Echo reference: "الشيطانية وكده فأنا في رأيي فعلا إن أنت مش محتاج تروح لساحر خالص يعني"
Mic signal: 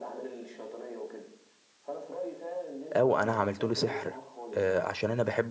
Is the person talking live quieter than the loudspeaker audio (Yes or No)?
No